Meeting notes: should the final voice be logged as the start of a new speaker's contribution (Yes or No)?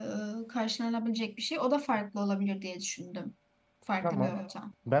Yes